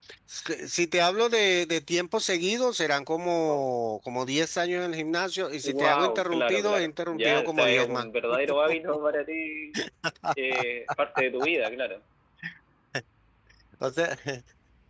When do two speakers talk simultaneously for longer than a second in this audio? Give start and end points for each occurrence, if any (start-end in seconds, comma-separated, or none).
5.6-8.1